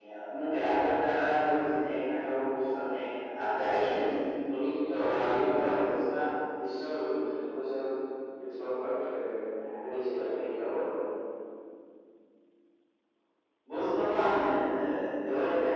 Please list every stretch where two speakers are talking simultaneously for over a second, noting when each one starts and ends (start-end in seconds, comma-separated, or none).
5.0-6.3